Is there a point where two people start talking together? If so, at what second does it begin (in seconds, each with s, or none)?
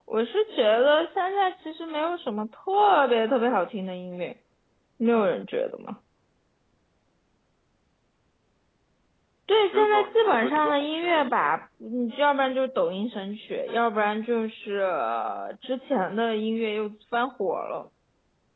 9.7 s